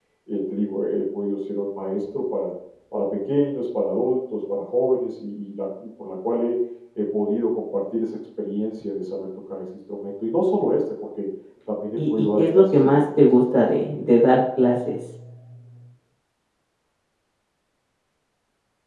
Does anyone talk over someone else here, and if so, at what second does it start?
12.0 s

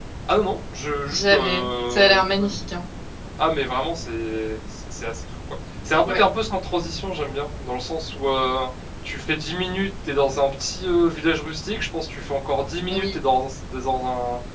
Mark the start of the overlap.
1.1 s

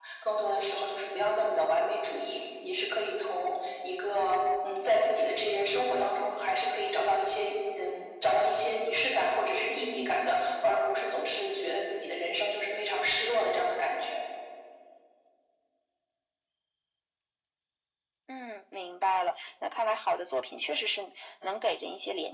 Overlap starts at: none

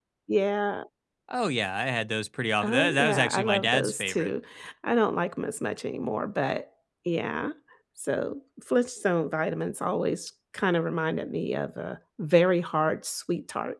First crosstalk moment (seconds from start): 2.6 s

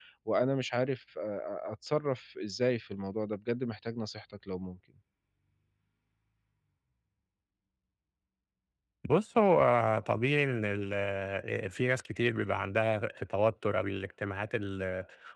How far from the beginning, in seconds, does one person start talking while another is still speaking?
none

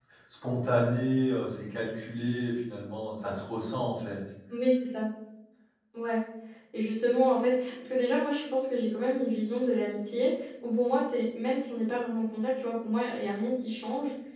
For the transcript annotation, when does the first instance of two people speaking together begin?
none

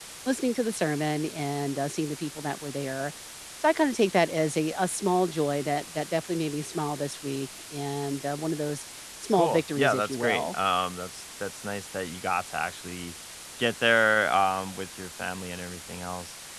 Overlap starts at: 9.3 s

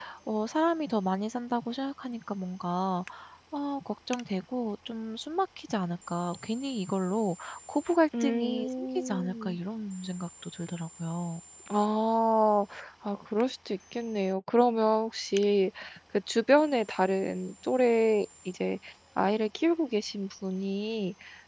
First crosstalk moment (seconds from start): 8.1 s

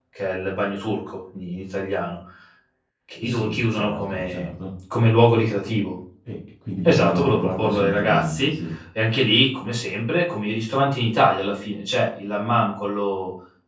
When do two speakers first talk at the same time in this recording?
3.2 s

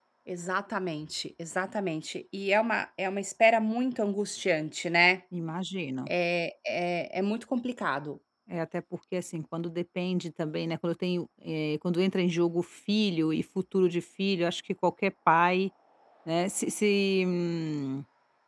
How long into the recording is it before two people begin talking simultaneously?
none

